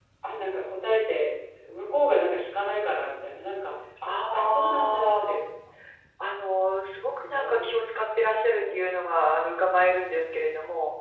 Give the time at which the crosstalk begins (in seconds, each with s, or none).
4.1 s